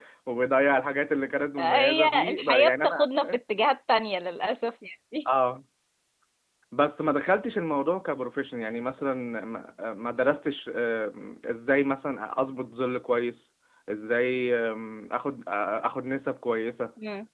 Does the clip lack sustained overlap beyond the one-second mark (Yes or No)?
No